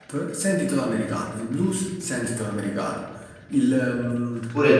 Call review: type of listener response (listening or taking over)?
taking over